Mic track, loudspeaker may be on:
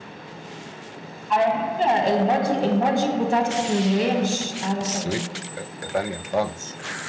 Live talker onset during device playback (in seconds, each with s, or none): 4.8 s